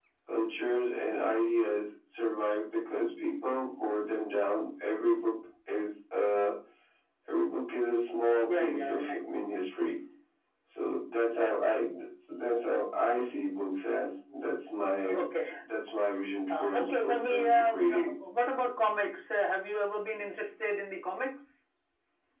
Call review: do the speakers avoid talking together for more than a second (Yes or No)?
No